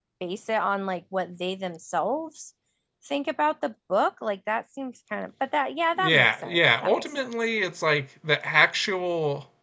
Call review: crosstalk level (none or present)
present